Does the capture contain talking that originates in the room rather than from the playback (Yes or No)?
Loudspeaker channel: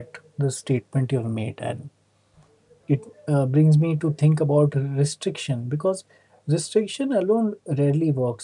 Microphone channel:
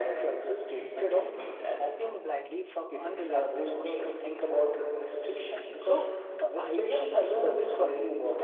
Yes